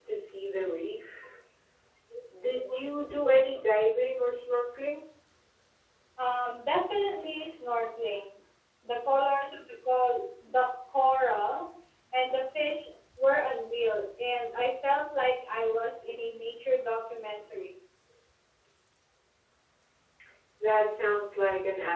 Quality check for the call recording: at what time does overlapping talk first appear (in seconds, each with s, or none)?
none